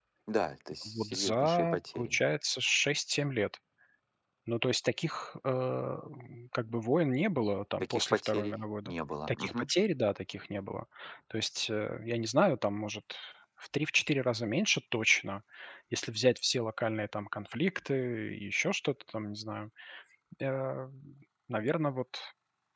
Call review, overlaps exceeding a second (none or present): present